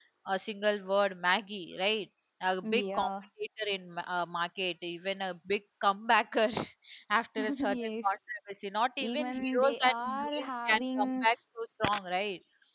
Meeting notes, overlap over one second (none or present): present